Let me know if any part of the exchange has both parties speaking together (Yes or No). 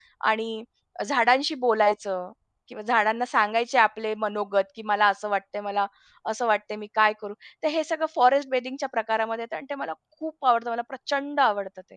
No